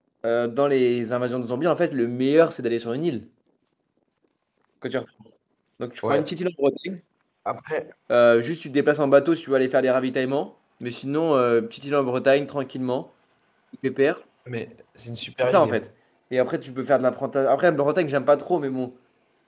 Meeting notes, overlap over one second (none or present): none